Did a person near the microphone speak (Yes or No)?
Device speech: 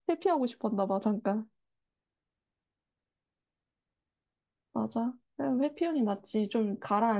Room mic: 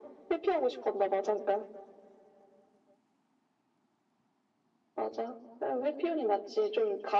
No